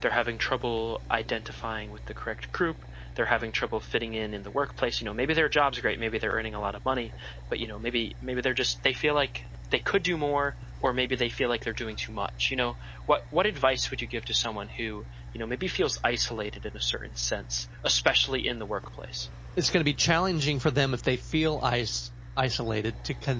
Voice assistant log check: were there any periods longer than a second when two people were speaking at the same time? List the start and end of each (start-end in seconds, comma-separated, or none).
none